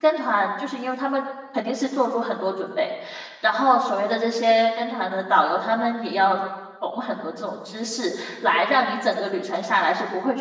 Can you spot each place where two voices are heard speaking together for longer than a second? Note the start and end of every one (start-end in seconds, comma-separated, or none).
none